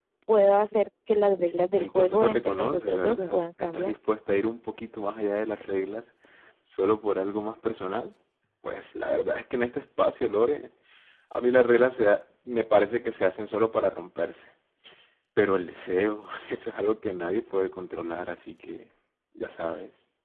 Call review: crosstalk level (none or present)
present